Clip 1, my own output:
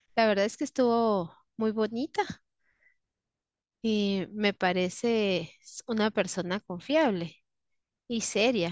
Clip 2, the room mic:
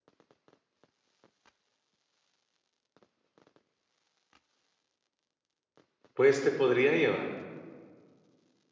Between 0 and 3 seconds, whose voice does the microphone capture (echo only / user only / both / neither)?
neither